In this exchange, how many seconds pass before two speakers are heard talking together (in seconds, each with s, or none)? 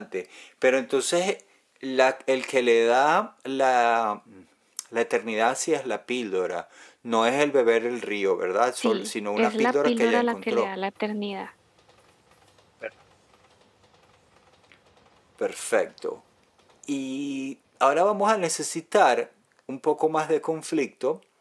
8.8 s